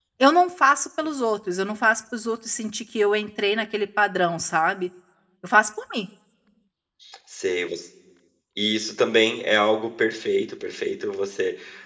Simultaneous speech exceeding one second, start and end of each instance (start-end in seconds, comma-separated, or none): none